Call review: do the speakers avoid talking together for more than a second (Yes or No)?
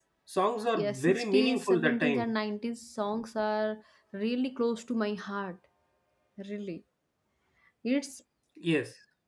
No